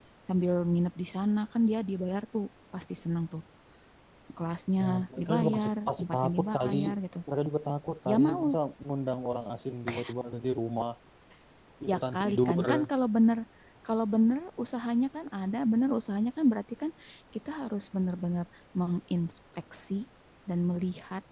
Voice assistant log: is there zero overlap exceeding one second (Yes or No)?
No